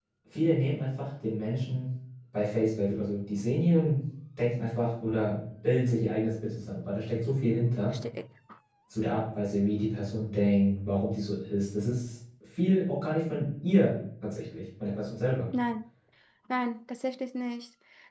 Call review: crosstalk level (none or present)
none